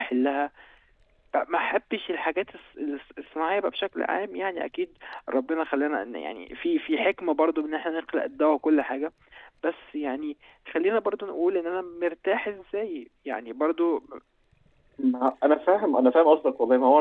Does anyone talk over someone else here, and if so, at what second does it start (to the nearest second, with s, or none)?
none